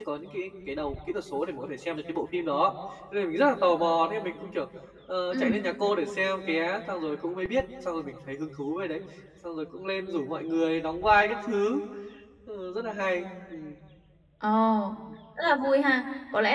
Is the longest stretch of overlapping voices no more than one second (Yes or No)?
Yes